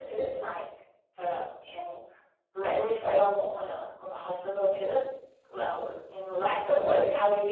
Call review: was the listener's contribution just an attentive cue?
Yes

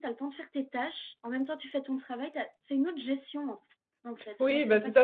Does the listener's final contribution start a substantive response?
Yes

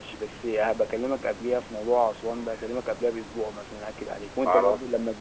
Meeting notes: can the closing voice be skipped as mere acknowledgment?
Yes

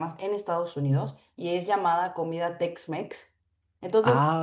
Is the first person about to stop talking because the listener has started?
No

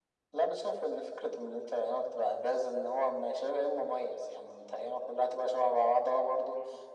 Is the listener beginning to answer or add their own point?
No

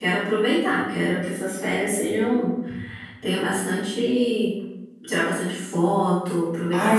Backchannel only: No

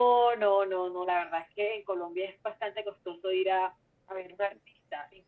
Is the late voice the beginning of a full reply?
No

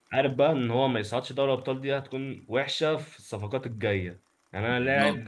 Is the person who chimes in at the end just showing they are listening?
Yes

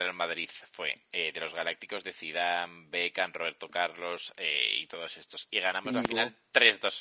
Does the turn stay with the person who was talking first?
Yes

